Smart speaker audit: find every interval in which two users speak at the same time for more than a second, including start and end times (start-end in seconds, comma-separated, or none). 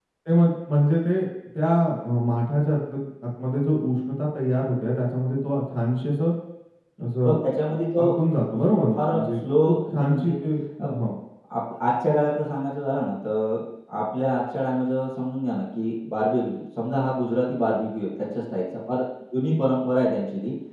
9.0-10.3